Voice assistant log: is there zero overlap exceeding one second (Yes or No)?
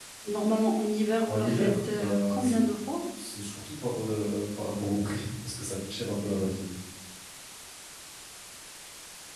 No